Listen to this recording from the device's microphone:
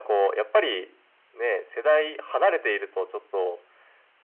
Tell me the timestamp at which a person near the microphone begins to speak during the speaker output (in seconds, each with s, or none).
none